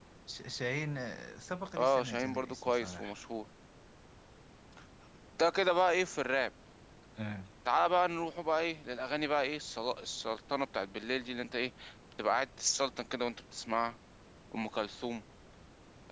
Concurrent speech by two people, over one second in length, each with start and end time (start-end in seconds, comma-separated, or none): 1.8-3.1